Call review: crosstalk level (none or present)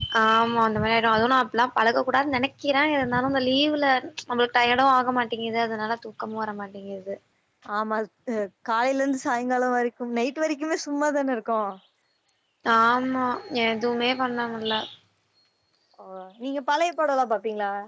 none